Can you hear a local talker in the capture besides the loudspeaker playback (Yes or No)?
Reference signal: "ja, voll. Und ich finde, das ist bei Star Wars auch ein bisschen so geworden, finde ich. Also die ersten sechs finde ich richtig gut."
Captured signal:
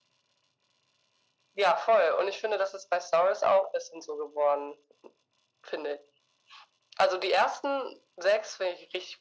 No